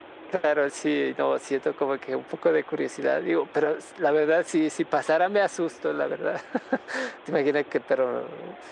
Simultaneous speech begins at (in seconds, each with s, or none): none